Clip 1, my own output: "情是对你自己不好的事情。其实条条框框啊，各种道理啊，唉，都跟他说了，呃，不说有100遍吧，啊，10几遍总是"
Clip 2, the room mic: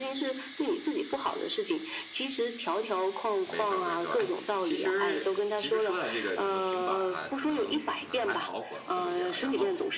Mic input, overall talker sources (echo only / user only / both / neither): both